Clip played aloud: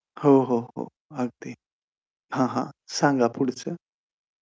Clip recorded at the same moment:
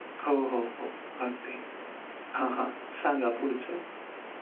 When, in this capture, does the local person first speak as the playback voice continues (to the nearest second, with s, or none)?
none